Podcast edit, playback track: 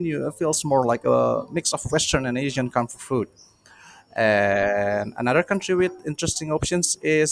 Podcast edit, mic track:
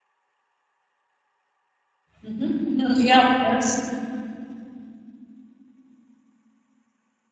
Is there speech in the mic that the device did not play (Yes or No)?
Yes